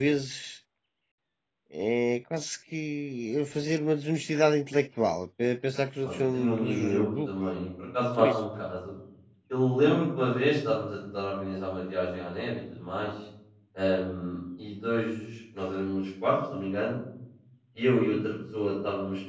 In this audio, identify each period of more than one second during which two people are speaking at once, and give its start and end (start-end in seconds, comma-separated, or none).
6.0-7.3